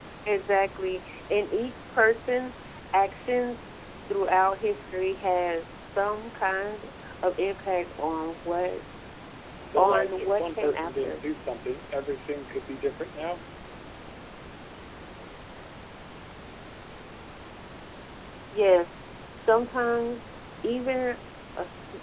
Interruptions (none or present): present